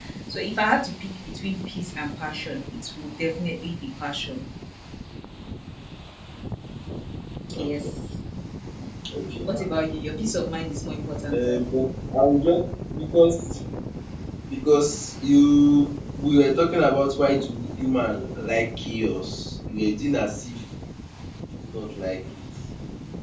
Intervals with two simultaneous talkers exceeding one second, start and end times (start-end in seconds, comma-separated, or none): none